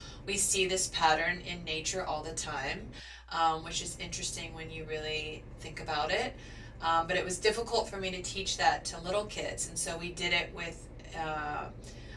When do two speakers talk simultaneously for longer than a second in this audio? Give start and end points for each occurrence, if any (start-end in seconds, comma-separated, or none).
none